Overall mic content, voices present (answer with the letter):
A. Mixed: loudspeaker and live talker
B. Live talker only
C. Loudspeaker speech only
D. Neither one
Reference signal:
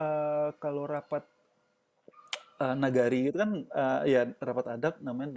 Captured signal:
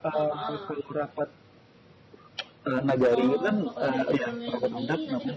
A